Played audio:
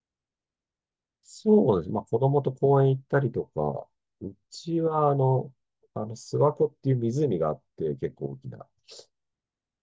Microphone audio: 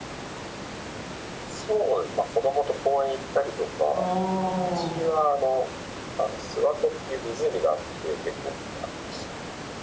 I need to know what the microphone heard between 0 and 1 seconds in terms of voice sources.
neither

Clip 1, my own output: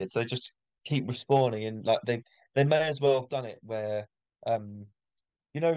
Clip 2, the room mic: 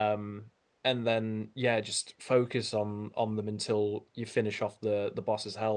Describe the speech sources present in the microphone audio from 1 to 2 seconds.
user only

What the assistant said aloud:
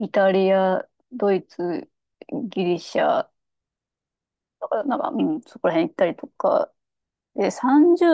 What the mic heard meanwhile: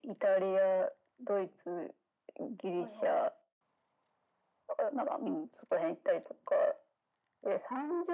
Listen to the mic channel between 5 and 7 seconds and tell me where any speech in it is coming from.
echo only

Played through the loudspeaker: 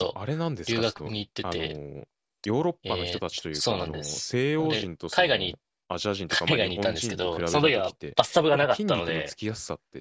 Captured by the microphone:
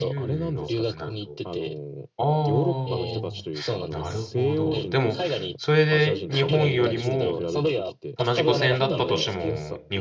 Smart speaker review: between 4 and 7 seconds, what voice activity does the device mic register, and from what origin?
both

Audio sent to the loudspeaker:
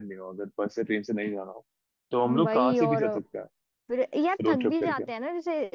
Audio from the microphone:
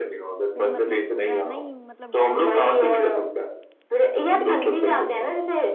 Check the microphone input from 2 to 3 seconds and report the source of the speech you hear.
both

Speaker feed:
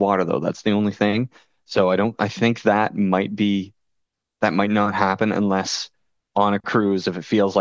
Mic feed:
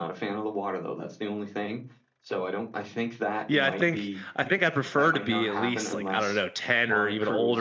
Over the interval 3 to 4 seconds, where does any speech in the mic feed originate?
both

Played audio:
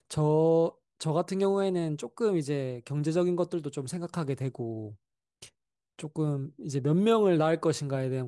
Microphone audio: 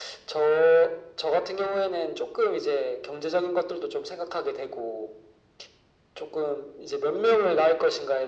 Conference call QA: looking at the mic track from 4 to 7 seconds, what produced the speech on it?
echo only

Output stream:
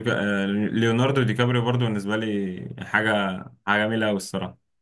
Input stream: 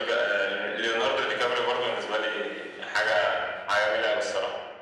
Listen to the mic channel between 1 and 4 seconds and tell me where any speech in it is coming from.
echo only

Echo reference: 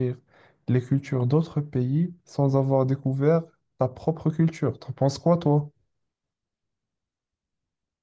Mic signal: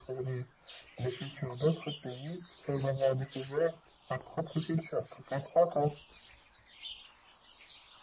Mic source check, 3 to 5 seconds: echo only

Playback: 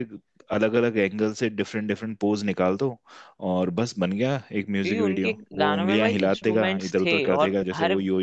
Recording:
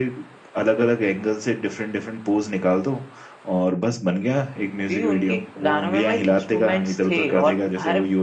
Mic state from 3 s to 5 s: echo only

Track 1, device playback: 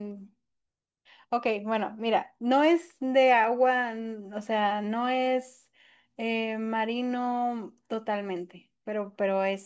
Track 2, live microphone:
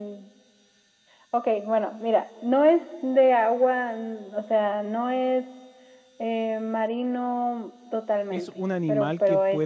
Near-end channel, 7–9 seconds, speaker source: both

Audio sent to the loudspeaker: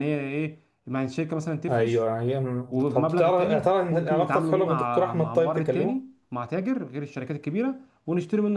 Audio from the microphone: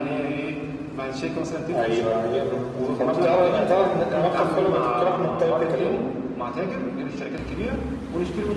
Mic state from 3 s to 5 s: echo only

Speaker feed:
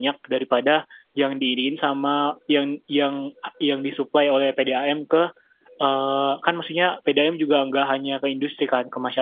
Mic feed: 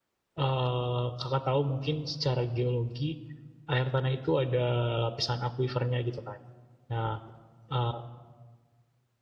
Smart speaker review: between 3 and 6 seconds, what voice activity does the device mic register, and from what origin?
user only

